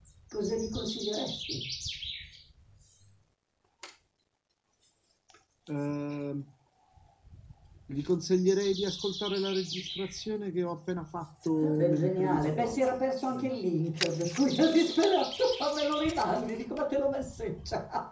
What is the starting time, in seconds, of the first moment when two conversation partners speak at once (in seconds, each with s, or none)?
11.6 s